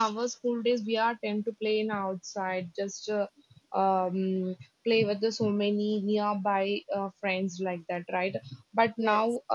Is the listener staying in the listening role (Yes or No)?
Yes